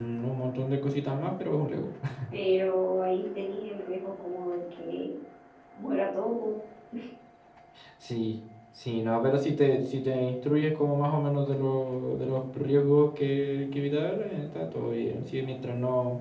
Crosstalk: none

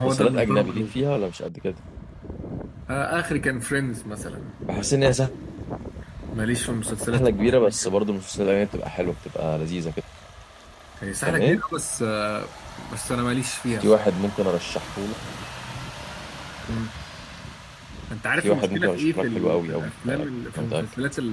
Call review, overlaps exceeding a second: present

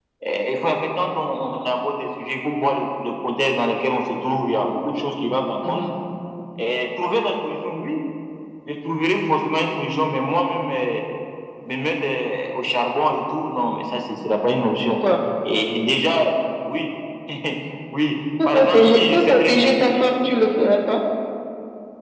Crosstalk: present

